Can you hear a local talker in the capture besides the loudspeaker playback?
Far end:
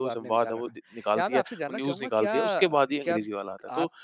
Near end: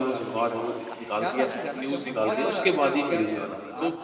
Yes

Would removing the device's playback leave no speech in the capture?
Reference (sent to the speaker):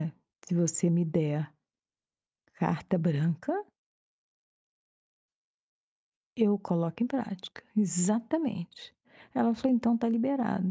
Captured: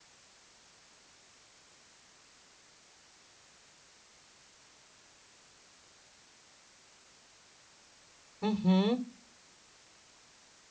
No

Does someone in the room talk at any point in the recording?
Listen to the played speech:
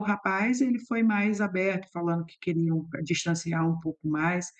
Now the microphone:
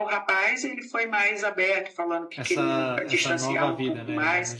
Yes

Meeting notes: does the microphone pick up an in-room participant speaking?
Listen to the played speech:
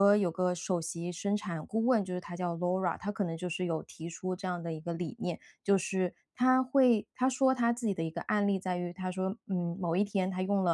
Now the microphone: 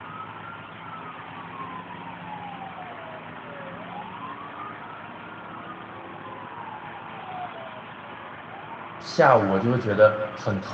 Yes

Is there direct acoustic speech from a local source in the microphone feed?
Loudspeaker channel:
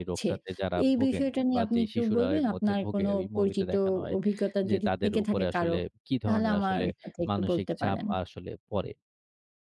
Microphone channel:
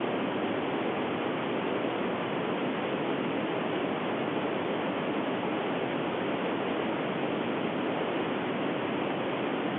No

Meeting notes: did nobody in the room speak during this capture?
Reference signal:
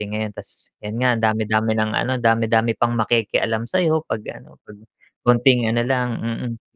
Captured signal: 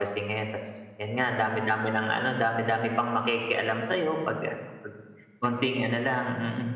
Yes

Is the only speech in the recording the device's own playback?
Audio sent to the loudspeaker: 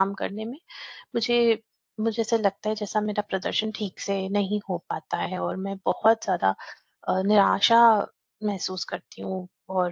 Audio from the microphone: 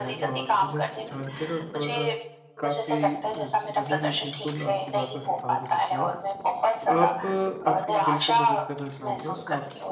No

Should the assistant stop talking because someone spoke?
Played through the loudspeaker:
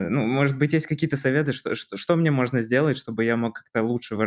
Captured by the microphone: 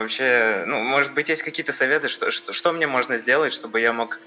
No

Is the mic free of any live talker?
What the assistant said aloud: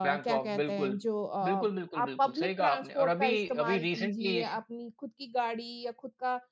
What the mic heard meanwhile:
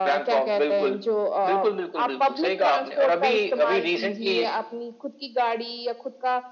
Yes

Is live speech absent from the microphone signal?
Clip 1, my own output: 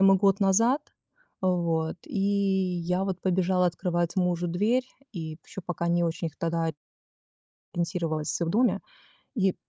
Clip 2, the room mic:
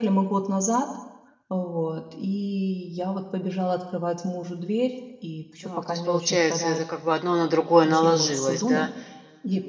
No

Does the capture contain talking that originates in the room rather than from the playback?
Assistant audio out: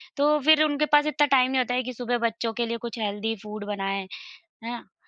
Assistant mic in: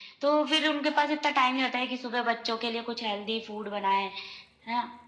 No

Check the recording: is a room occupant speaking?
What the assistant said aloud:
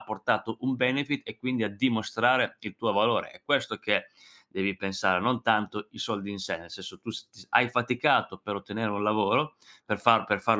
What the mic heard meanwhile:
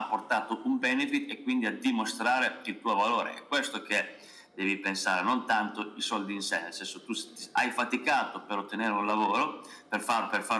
No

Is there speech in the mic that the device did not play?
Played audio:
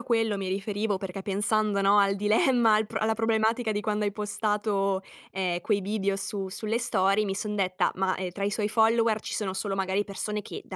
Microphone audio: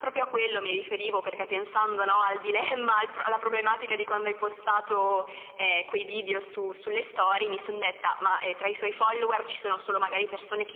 No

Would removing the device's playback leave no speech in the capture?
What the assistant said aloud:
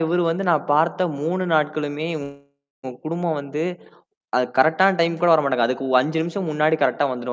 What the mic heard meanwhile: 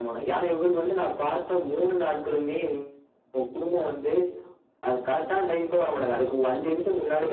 Yes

